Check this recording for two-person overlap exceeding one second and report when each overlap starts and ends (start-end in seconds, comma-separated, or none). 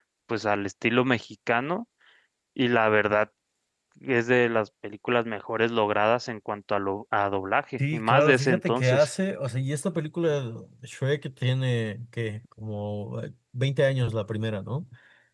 7.8-9.1